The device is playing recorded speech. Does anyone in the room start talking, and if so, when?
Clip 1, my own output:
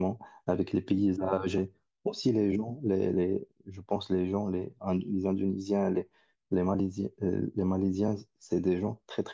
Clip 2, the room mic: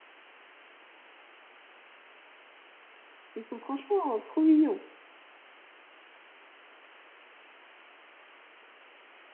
3.4 s

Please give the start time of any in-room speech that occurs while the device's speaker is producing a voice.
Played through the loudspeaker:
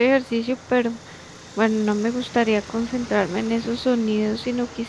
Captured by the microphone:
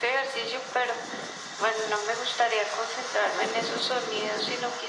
none

